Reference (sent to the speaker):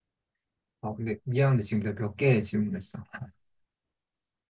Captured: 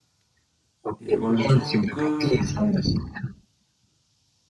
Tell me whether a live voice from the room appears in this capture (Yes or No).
Yes